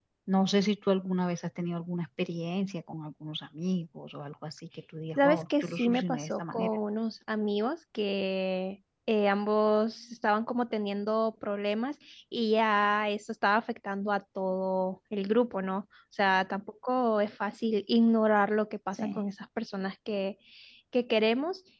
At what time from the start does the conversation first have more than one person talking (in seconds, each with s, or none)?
5.2 s